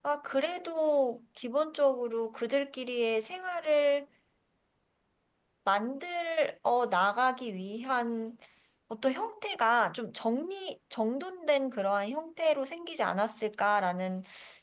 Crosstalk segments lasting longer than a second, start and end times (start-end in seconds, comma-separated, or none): none